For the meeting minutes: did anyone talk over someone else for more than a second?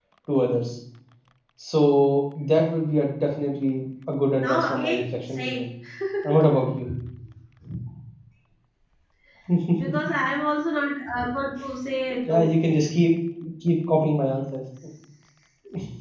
Yes, from 4.4 s

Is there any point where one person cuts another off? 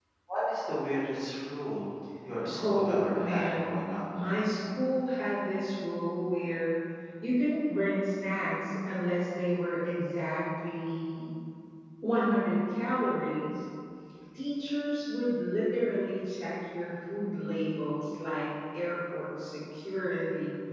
Yes, from 2.5 s

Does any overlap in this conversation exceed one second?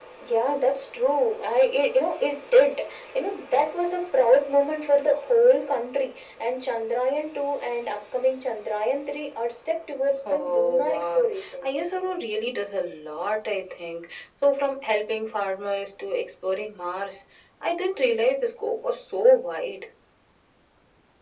Yes, from 10.2 s

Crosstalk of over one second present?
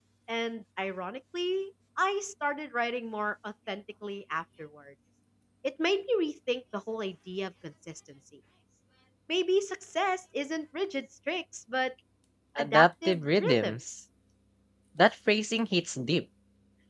Yes, from 12.6 s

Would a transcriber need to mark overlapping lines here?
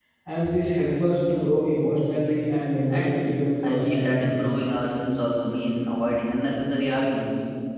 Yes, from 2.9 s

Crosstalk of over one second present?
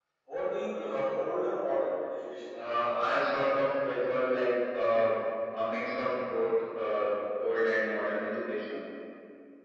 No

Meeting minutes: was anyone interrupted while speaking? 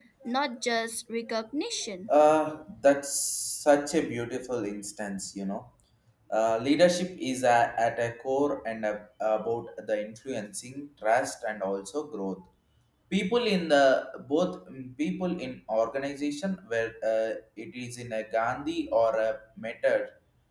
No

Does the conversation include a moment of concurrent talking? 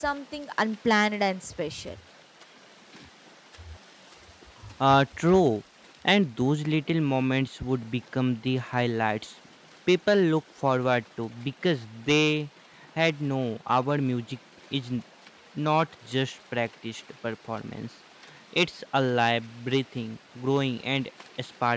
No

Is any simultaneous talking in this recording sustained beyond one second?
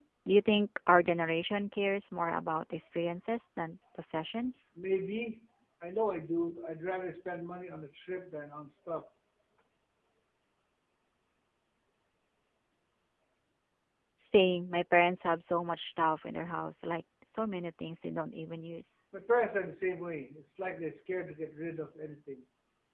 No

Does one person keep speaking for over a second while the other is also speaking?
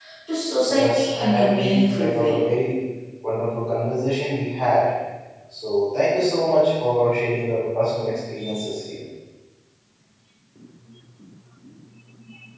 Yes, from 0.7 s

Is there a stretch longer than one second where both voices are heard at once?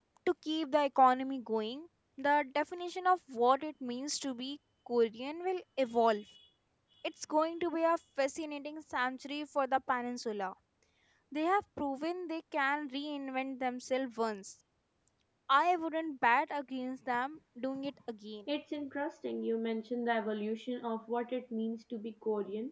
No

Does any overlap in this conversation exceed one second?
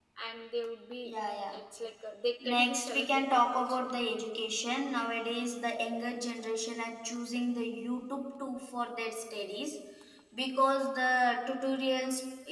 Yes, from 2.4 s

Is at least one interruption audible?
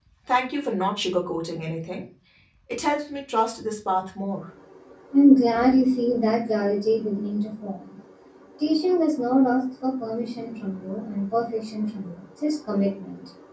No

